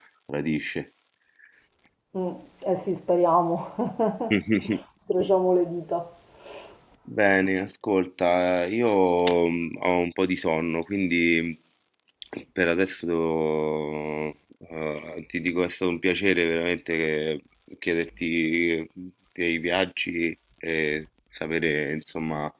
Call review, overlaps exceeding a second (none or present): none